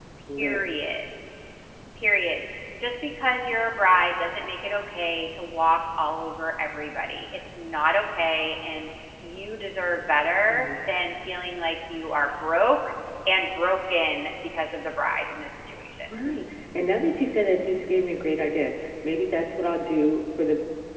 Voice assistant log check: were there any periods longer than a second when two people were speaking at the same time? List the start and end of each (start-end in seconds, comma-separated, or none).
none